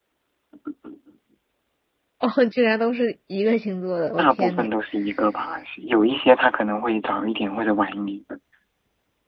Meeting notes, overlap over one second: none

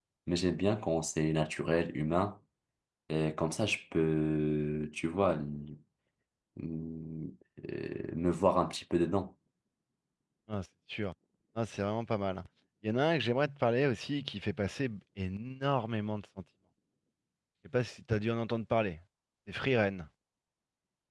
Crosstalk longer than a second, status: none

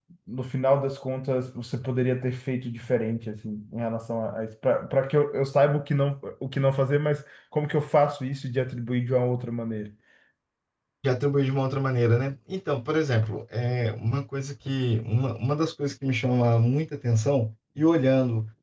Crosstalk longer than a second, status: none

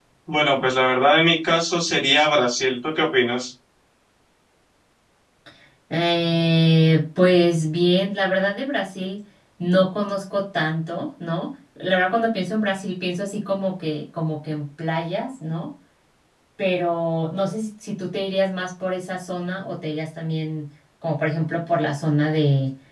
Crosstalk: none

